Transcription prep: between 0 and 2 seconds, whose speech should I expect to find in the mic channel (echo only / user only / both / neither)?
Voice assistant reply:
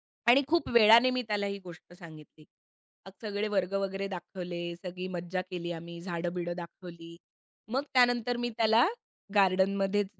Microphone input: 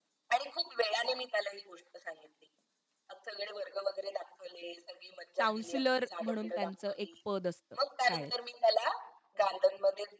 echo only